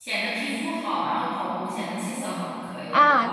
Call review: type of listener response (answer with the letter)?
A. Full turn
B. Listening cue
A